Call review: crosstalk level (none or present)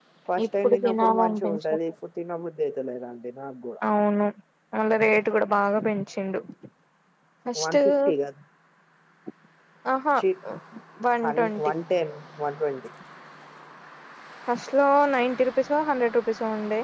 present